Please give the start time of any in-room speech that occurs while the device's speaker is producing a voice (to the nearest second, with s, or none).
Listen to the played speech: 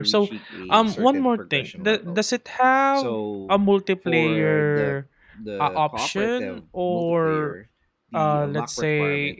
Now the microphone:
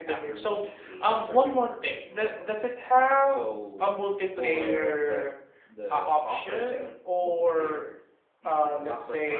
none